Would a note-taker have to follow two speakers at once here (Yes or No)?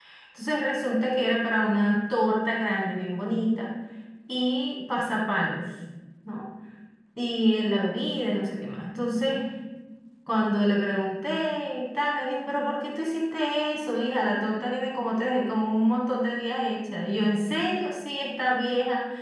No